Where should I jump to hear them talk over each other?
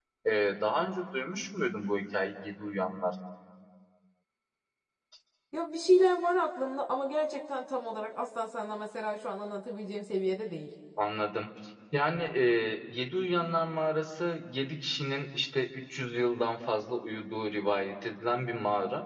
none

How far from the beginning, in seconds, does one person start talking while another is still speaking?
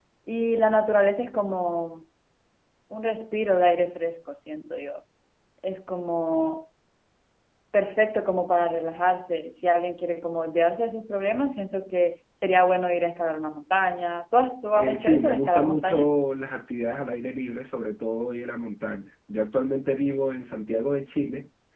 14.8 s

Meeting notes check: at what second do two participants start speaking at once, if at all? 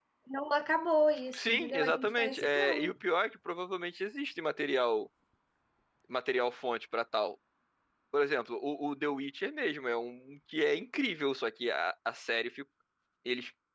1.3 s

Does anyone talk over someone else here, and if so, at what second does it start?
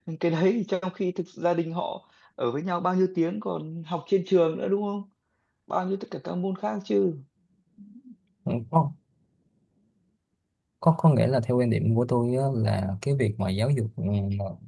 none

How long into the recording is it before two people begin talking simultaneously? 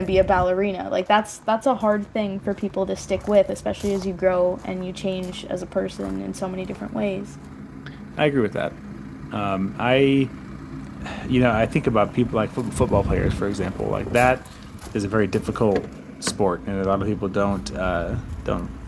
none

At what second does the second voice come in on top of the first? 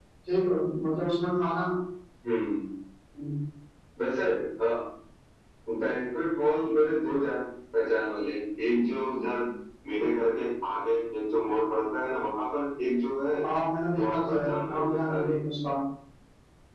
13.9 s

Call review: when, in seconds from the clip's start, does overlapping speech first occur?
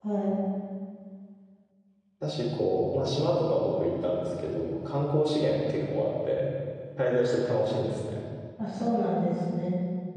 none

